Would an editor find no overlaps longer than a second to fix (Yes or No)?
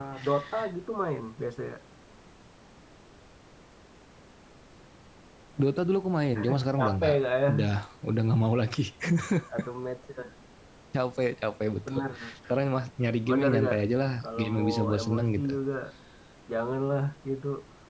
No